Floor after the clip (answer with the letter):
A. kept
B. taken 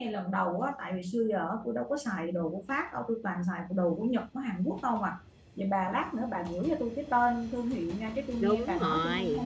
B